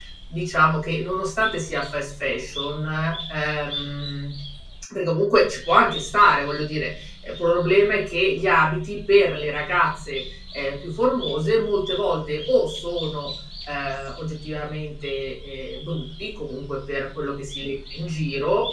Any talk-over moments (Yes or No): No